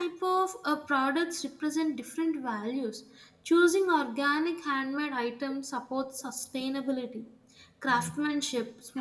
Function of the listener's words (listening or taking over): listening